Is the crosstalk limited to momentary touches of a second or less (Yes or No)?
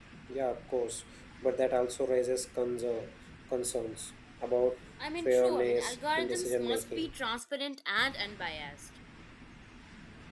No